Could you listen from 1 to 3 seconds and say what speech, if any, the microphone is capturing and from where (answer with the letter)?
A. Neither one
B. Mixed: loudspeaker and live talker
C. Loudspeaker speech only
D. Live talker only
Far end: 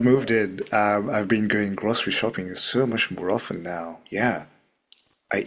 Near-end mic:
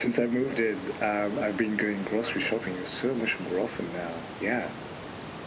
C